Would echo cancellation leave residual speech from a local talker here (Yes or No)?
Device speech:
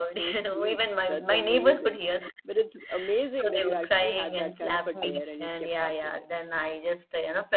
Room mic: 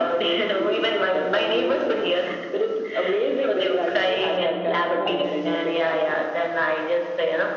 No